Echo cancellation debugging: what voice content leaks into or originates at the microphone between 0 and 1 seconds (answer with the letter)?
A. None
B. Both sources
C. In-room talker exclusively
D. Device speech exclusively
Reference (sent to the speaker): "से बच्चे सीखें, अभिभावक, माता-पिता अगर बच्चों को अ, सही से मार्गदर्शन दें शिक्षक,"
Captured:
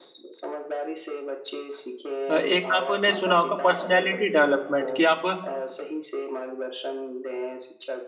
D